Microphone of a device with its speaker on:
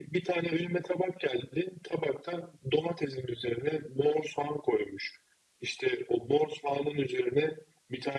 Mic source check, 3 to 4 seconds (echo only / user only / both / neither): echo only